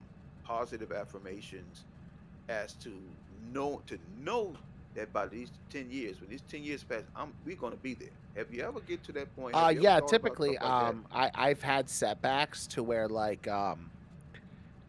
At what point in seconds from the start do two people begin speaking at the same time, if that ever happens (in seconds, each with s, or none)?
9.5 s